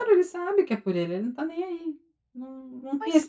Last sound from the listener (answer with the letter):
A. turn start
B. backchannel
B